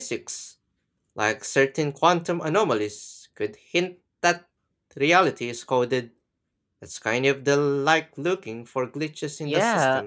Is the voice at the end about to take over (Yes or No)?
Yes